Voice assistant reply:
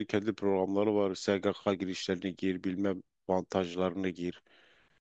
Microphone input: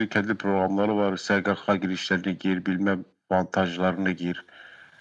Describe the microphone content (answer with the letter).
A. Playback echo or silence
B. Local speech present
A